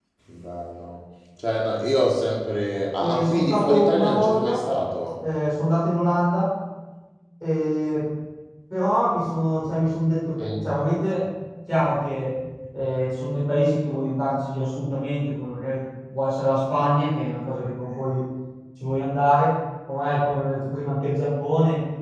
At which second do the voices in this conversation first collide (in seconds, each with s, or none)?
3.0 s